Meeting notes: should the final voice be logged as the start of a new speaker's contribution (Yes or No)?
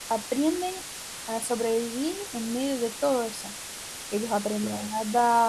No